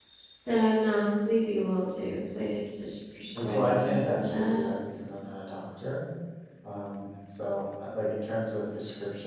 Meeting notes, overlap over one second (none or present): present